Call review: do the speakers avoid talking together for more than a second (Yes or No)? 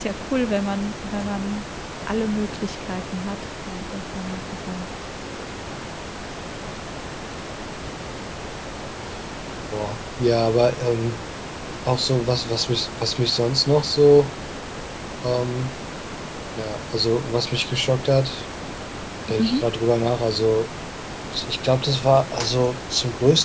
Yes